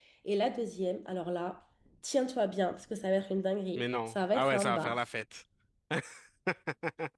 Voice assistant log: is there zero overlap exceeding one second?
No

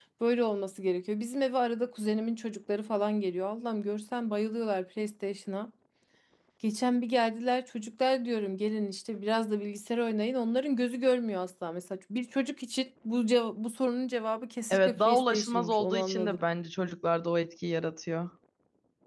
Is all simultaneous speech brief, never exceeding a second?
No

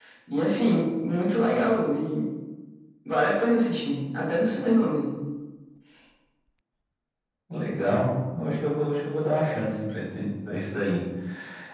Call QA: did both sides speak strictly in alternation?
Yes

